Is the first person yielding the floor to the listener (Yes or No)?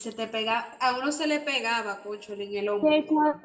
Yes